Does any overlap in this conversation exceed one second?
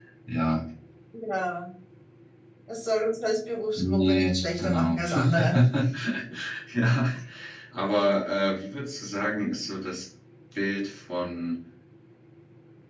Yes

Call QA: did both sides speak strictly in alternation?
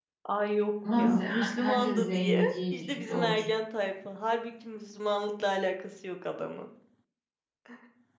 No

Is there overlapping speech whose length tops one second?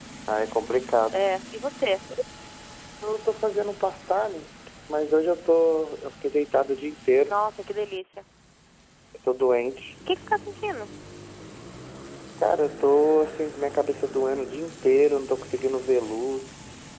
No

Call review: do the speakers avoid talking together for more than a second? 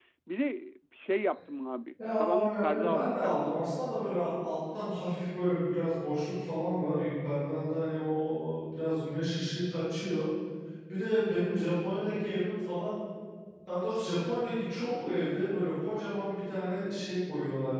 No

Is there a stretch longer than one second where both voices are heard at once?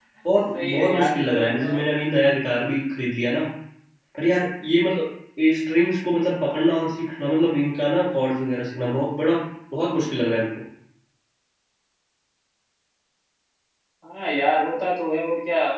Yes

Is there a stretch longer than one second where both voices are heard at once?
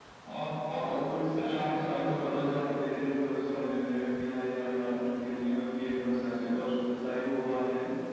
Yes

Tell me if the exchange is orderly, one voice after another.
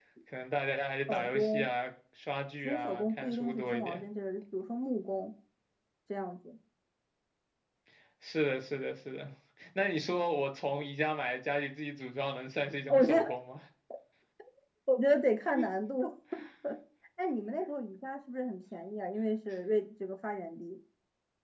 No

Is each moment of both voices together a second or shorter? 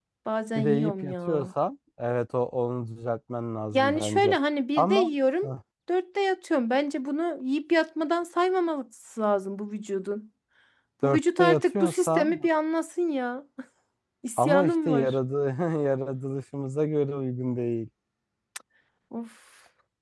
No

